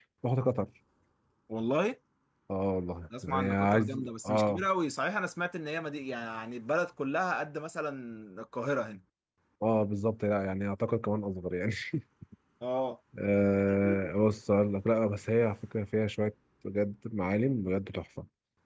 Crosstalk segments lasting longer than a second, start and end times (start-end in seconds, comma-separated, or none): 3.2-4.6